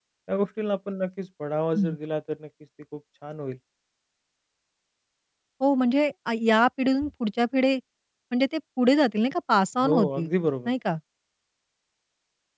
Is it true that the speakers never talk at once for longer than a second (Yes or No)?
Yes